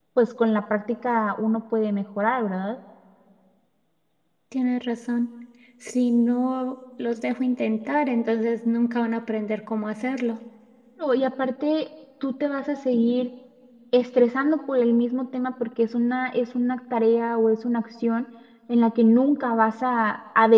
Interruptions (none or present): none